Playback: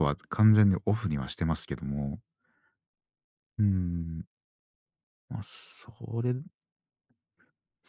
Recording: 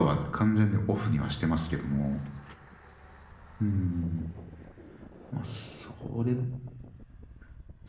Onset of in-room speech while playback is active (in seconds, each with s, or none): none